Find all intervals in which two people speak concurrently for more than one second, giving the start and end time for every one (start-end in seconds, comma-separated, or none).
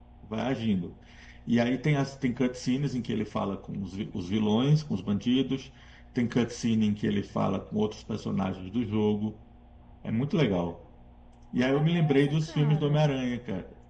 11.6-13.1